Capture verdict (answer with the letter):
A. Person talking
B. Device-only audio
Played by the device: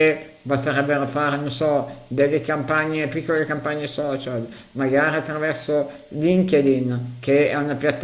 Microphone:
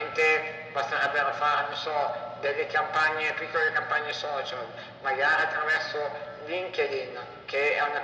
B